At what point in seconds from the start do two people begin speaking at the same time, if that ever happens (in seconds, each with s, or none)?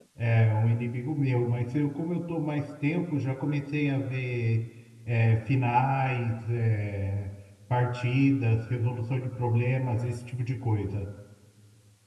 none